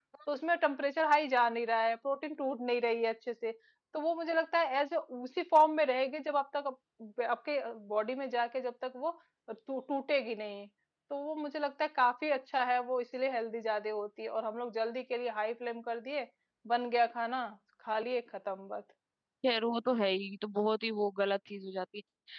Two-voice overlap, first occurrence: none

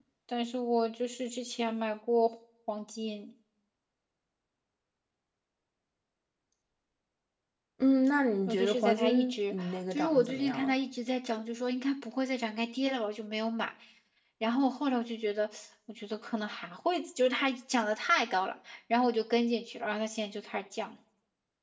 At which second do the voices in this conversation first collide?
8 s

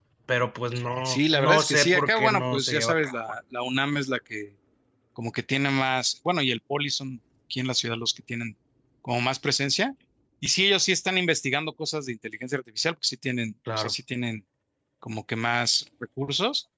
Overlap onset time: 1 s

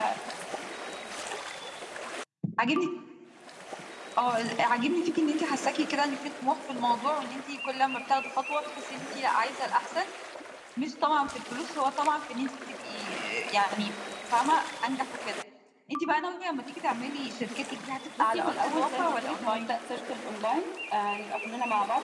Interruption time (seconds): 18 s

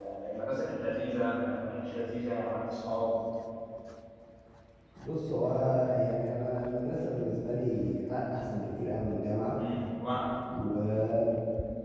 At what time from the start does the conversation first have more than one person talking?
none

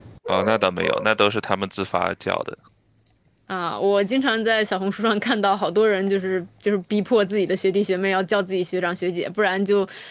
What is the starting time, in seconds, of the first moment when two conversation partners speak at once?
none

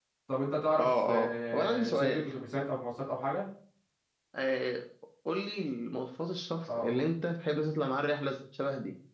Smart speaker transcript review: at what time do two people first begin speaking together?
1 s

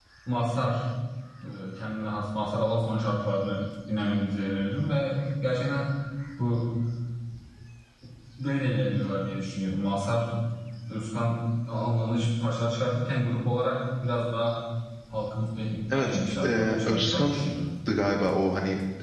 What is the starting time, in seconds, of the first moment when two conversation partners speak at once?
16 s

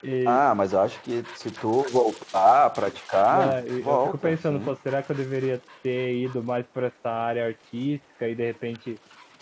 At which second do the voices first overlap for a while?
3 s

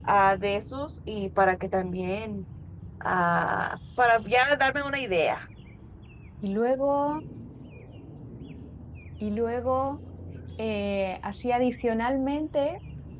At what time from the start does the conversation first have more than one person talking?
none

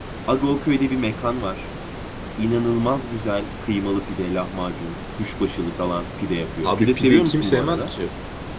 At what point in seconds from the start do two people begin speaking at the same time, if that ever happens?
7 s

